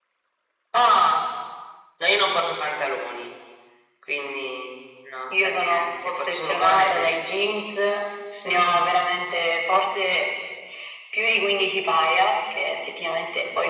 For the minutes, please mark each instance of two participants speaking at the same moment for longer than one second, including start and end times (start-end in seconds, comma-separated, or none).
5.3-7.7